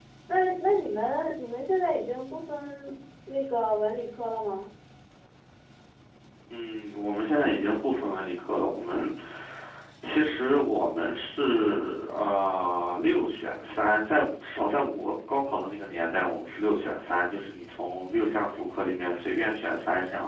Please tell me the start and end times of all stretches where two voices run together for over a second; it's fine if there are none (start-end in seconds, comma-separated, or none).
none